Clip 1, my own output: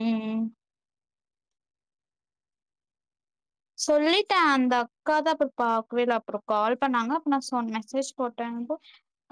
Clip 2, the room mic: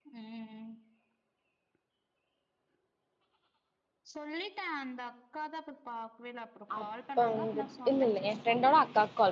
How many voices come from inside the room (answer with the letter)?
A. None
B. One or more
B